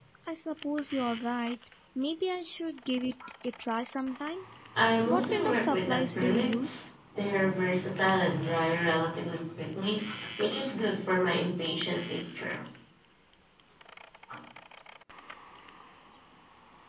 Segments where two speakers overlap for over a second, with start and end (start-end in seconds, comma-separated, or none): 5.0-6.8